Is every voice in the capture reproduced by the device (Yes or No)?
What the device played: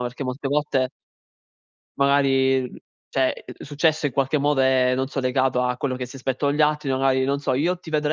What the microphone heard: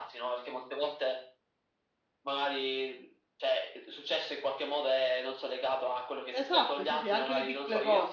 No